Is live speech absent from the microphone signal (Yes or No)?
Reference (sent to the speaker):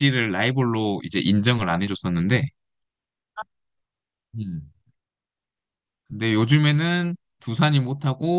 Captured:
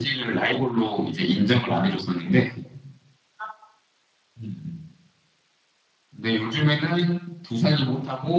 Yes